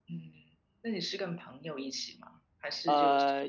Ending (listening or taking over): taking over